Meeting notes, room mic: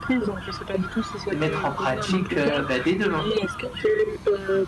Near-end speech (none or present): present